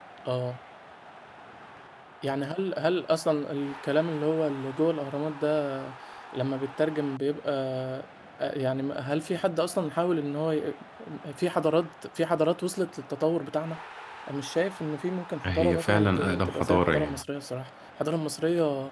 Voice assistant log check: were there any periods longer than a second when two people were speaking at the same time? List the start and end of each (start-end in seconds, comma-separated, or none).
15.4-17.2